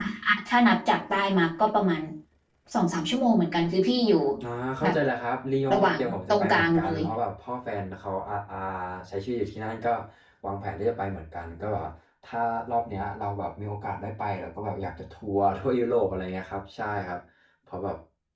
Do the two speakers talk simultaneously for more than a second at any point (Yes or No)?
Yes